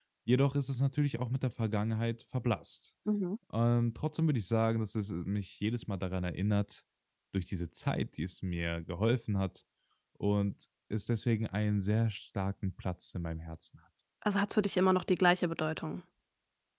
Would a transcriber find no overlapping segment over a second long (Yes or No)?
Yes